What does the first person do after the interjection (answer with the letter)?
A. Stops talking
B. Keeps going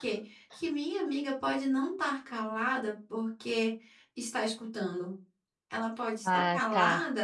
B